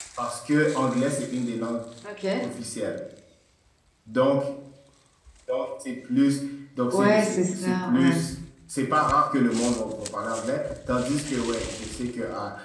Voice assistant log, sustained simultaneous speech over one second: present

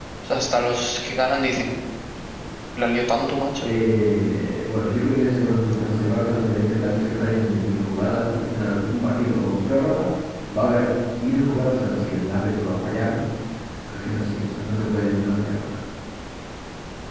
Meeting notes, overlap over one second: none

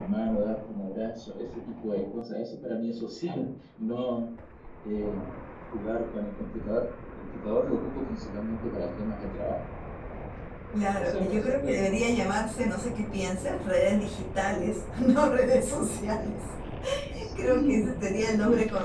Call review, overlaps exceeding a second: present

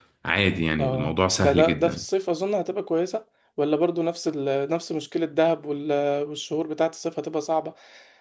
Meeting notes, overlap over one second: present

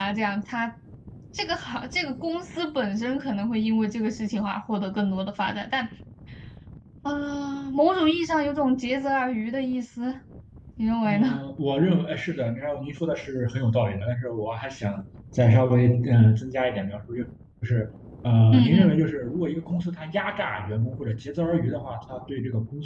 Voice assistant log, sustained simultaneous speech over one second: none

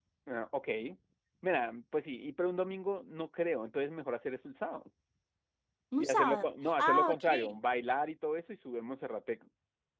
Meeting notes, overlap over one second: present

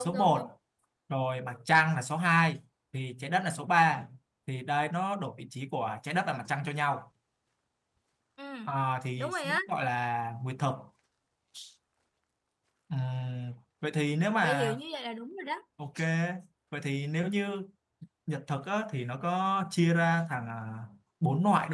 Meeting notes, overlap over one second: none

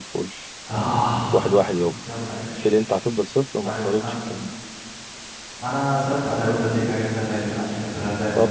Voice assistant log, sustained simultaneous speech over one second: none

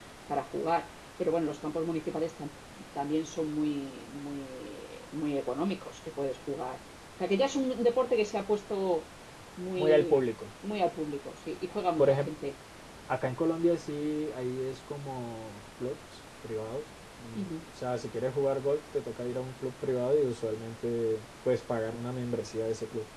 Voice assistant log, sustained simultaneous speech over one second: none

